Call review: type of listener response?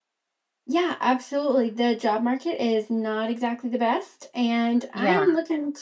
listening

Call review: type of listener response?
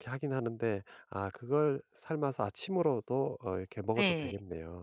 taking over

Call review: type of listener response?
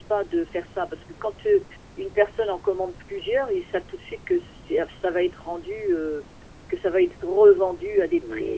taking over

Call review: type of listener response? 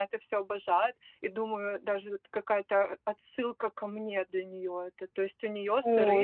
listening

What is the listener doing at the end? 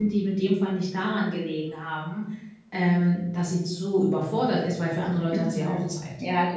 taking over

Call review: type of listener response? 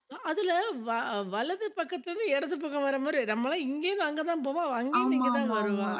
taking over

